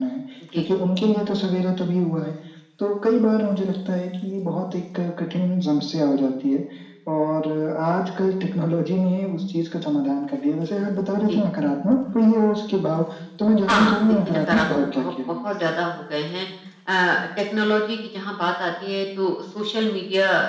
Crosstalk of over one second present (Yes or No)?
Yes